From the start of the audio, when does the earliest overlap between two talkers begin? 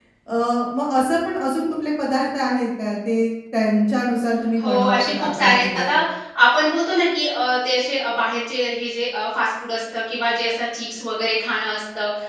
4.6 s

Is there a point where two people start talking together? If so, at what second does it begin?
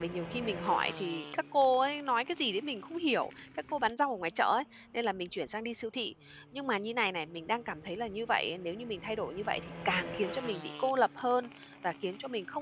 none

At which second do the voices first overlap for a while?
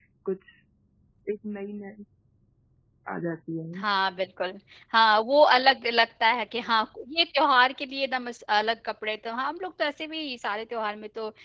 none

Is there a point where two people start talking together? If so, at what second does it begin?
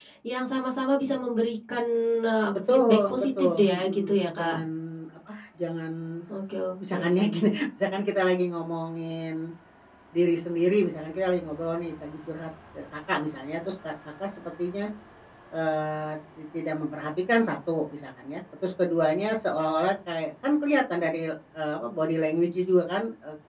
2.7 s

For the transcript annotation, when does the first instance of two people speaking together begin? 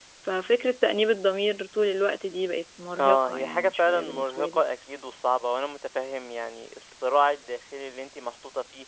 3.0 s

